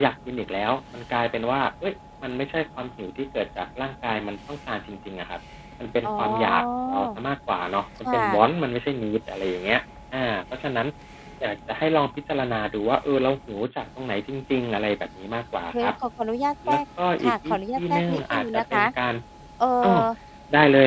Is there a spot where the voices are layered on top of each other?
Yes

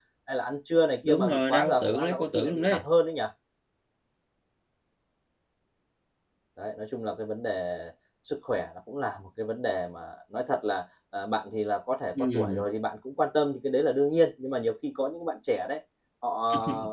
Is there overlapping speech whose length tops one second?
Yes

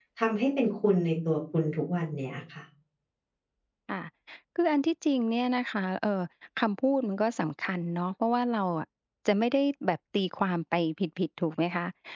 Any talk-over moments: No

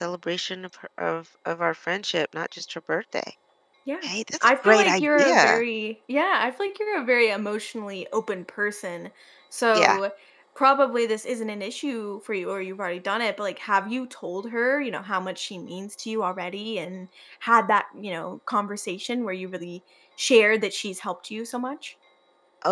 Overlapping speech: Yes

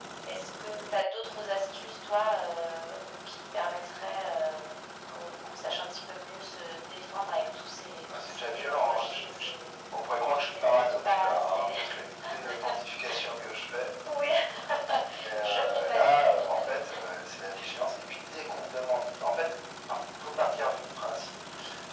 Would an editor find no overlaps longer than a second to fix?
No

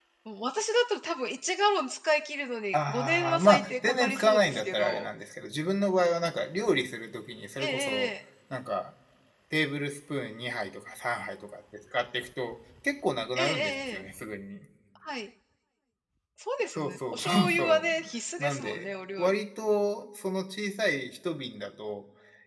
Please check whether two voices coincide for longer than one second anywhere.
Yes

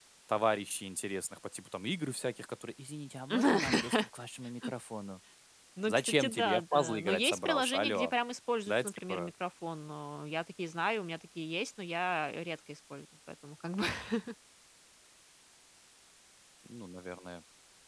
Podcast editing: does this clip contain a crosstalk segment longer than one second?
Yes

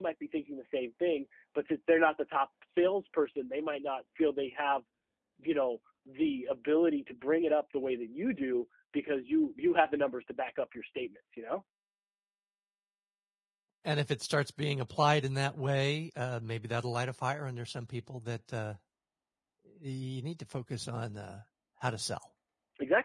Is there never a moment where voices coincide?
Yes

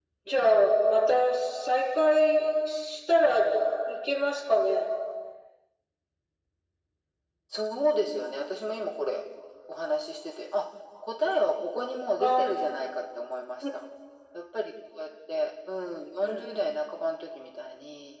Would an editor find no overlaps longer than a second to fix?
Yes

